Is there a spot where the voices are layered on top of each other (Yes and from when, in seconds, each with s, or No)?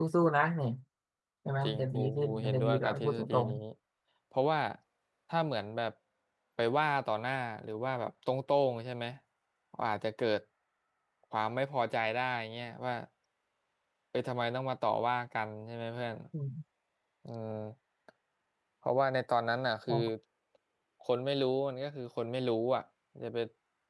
Yes, from 1.6 s